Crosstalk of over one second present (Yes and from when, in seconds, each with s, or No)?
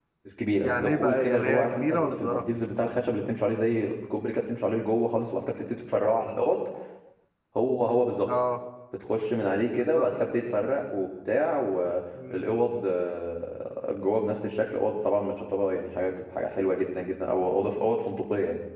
Yes, from 0.6 s